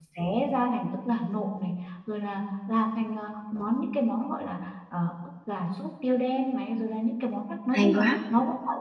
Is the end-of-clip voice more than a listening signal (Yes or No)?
No